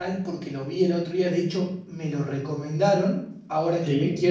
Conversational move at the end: listening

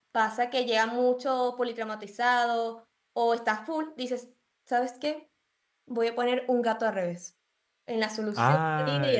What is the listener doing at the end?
taking over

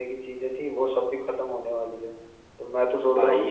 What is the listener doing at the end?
listening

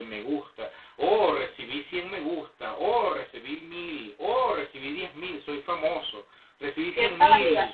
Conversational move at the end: taking over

